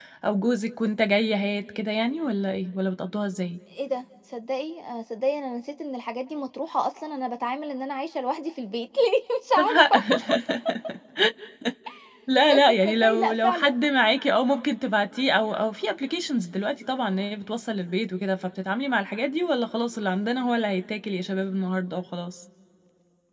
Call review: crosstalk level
present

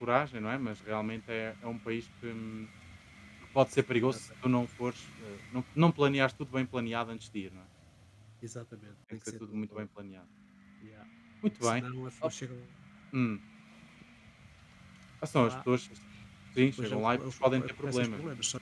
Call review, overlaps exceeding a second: present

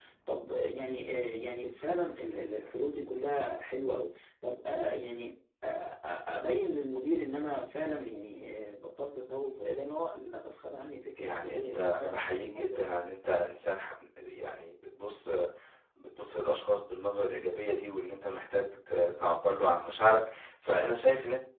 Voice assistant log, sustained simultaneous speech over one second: present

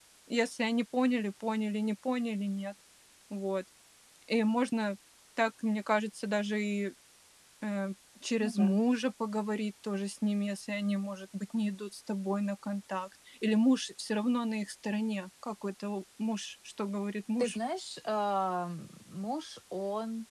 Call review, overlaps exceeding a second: none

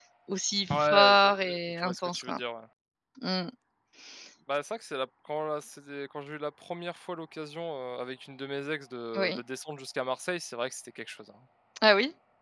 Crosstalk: present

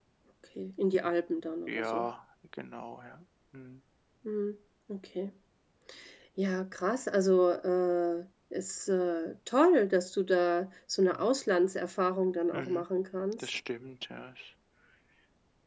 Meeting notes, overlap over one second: none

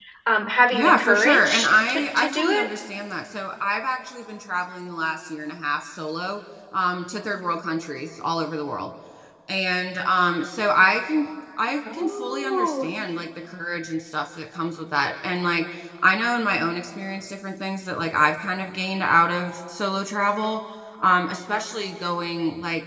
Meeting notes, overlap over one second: present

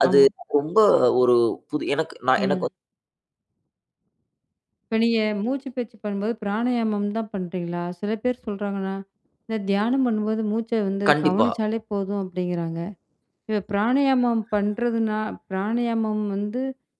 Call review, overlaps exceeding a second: none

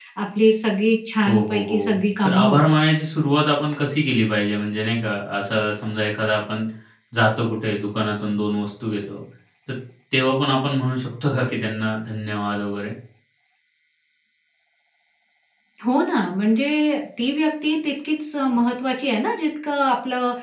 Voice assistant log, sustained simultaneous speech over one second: present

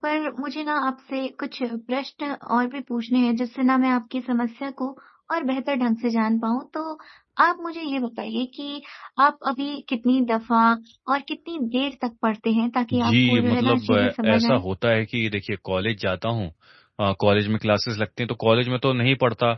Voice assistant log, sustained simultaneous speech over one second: present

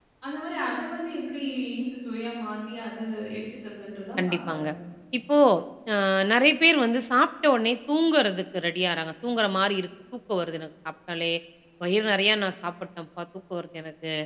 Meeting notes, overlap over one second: none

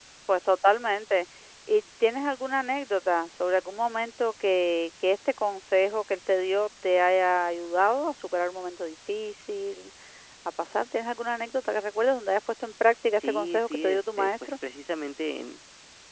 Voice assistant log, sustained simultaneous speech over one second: present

